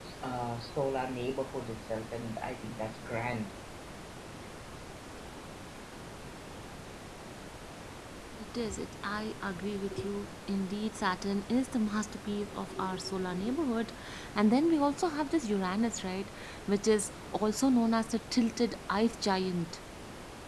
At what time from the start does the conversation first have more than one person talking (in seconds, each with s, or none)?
none